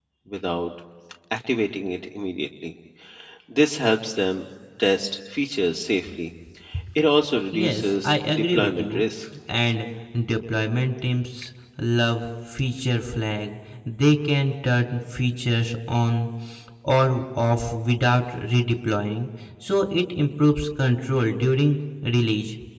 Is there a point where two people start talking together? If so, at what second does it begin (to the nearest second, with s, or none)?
8 s